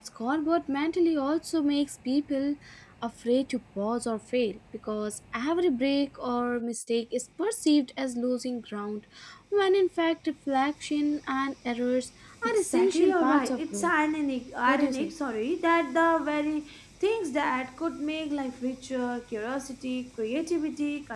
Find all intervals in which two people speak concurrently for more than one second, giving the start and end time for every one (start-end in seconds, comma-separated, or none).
12.4-13.9